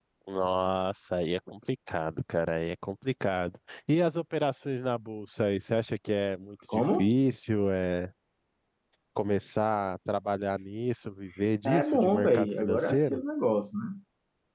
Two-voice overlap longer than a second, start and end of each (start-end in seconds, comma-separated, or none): 11.7-13.2